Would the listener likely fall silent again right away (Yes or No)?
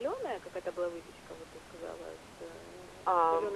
No